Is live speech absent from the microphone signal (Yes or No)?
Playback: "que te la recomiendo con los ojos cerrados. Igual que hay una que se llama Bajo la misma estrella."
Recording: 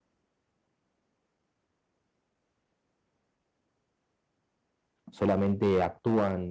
No